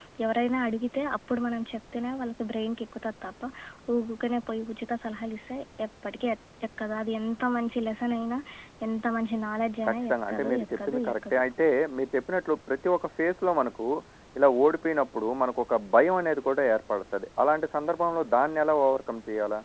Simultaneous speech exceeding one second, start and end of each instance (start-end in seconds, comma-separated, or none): 9.9-11.4